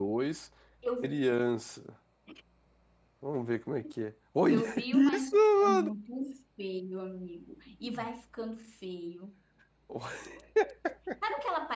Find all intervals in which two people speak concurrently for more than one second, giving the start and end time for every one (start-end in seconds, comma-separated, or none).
4.5-5.9